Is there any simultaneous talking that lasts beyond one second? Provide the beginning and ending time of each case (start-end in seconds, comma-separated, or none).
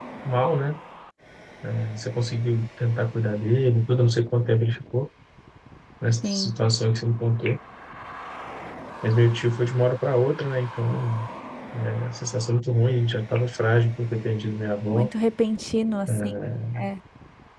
none